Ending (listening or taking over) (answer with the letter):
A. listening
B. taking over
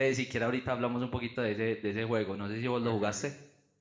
B